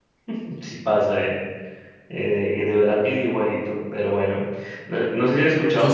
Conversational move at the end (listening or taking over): listening